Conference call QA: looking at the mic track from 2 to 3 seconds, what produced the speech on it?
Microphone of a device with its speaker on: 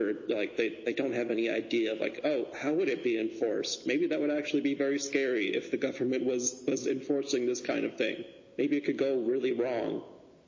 echo only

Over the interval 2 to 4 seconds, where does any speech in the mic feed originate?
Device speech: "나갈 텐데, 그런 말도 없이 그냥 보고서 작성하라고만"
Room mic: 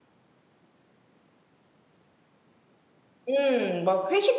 user only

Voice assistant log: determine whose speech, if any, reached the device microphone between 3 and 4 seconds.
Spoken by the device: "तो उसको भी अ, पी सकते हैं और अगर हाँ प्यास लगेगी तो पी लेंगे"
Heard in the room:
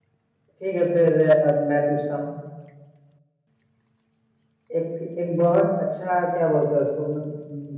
neither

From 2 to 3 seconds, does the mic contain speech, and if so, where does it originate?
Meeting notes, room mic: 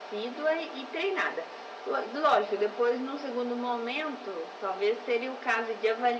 echo only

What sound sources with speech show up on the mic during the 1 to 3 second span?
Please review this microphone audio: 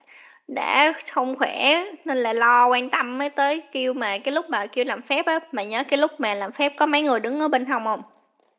user only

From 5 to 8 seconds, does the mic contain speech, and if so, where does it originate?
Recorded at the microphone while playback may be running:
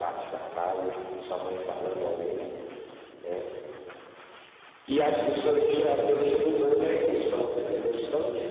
echo only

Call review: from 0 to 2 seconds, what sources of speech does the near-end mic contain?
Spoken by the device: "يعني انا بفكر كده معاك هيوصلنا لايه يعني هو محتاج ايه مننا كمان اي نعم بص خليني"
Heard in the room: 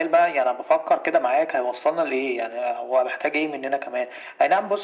echo only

